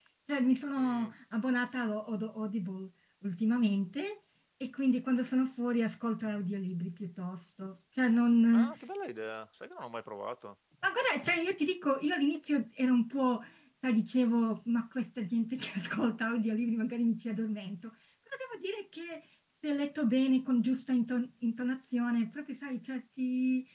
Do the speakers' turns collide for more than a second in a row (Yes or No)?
No